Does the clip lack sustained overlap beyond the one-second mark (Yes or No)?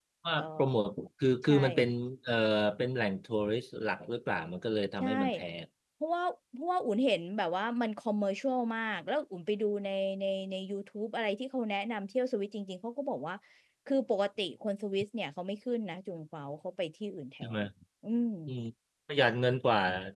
Yes